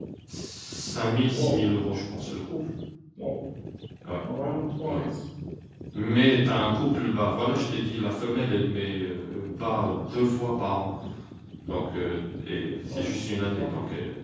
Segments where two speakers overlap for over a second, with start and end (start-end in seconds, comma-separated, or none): none